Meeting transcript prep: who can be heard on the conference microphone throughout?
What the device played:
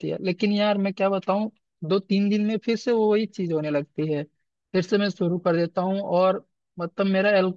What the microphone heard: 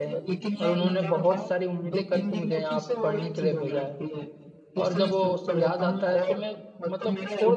both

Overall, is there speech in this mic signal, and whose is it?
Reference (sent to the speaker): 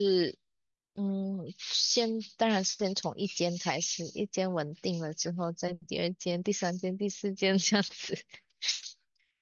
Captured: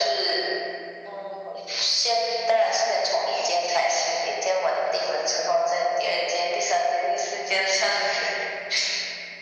echo only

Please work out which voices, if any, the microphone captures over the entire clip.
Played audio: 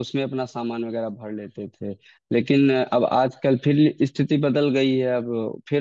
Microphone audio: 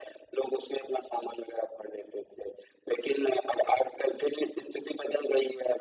echo only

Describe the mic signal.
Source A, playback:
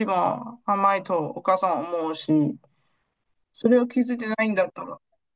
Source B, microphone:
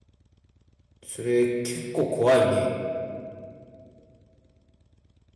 user only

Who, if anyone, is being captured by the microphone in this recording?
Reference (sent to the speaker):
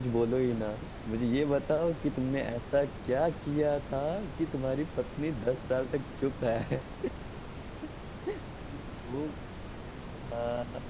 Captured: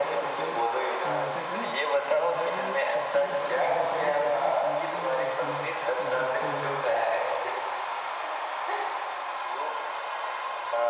both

